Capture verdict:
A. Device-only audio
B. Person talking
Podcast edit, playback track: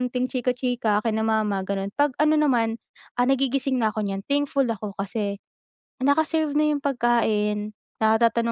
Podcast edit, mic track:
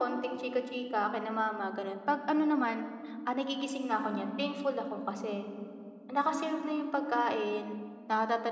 A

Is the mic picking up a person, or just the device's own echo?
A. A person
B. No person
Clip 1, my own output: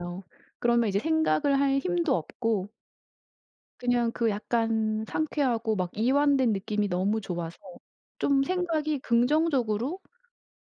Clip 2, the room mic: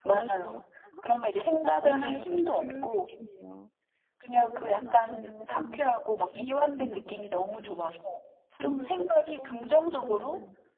A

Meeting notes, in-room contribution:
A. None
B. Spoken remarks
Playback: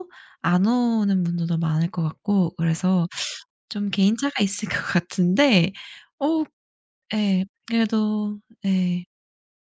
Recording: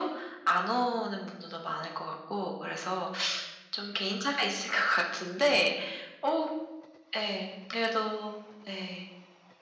A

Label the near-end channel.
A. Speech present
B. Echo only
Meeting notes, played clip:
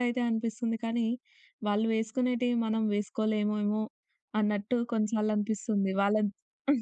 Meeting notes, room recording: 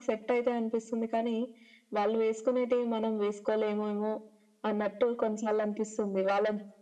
B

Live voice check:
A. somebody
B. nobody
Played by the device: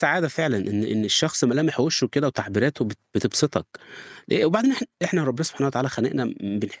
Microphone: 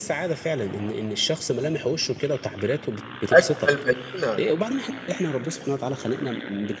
A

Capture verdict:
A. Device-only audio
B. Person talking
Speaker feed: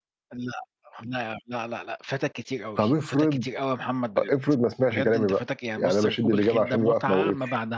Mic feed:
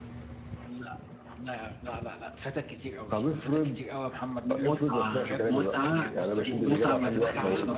B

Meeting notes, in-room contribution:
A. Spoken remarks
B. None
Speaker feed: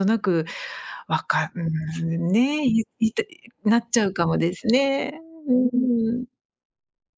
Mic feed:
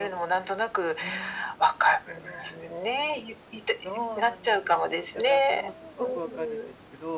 A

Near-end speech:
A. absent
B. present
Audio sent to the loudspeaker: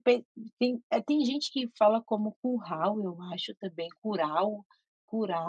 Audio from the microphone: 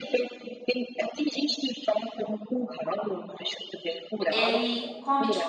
B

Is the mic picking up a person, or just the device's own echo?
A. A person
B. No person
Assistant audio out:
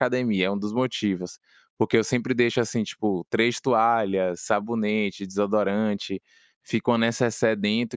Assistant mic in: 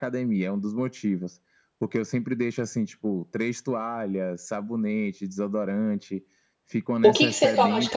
A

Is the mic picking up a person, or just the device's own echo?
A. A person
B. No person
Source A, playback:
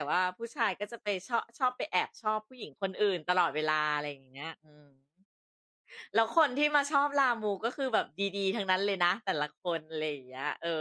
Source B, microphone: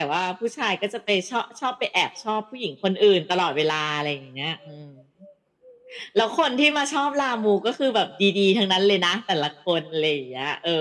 B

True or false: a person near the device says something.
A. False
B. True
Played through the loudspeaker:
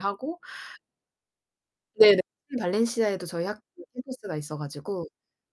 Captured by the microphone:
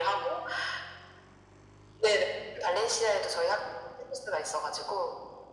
A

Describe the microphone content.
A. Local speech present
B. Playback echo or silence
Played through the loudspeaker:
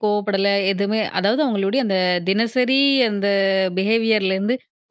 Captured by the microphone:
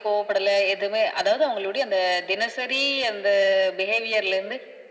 B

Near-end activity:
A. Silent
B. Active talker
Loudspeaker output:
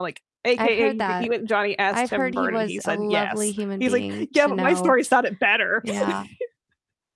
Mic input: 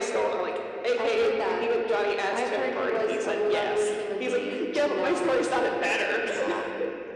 A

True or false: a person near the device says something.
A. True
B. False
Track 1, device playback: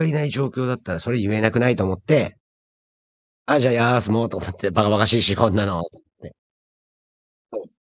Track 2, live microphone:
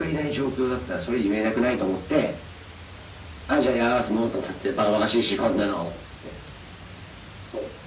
B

